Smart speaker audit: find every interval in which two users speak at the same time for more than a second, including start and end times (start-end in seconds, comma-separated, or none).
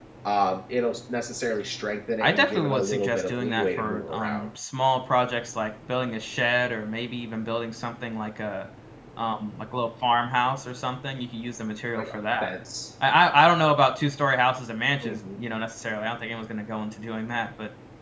2.2-4.5